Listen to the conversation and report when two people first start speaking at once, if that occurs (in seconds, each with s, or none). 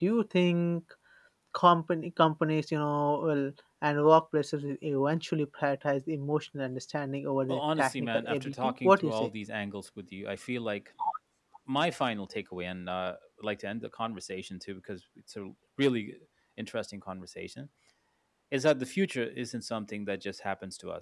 7.5 s